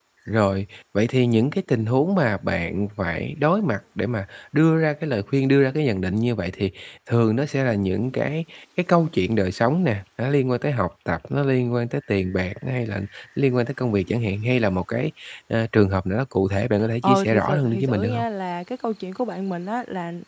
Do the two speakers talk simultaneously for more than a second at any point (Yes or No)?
Yes